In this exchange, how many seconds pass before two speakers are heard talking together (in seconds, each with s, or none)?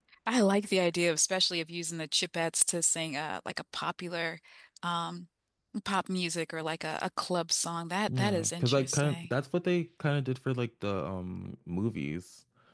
8.1 s